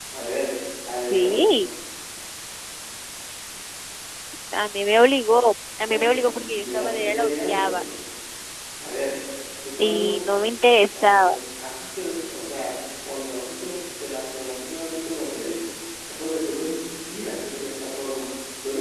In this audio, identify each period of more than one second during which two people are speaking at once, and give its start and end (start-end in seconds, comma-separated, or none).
5.9-7.7